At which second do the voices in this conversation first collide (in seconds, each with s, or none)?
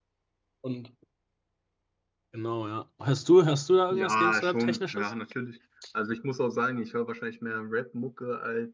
3.9 s